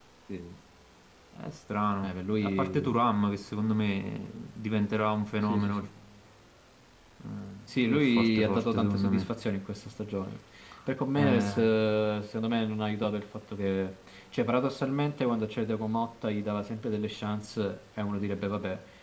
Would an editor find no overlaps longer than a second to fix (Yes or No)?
No